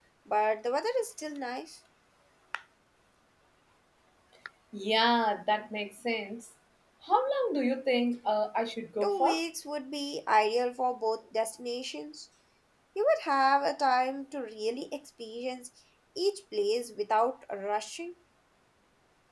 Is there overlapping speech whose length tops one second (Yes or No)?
No